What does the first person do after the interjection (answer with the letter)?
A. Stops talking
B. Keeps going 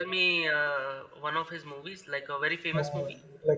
A